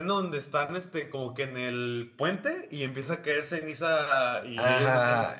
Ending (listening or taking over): taking over